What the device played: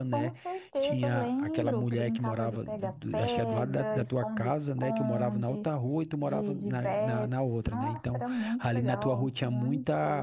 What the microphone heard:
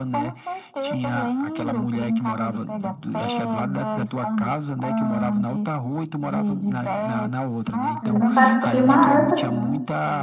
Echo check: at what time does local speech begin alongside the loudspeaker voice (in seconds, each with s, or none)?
8.0 s